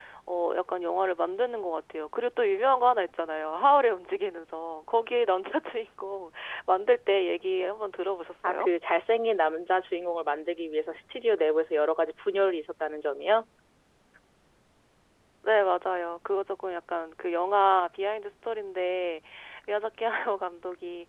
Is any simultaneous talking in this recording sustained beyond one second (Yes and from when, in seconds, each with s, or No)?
No